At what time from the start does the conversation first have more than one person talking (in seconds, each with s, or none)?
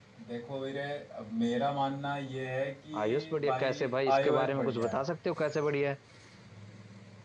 2.9 s